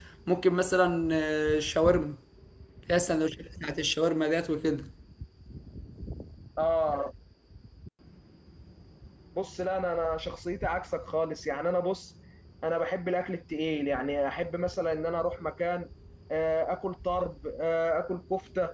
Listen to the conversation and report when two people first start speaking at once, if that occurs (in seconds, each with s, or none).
none